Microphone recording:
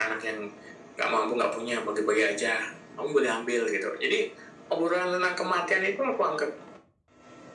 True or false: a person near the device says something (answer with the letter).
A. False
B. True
A